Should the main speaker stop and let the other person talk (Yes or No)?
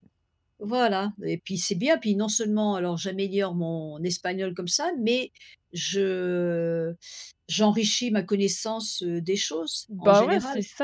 Yes